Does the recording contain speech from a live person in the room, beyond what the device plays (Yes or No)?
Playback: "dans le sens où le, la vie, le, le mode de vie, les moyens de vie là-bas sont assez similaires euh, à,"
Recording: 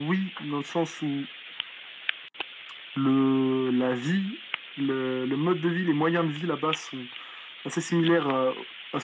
No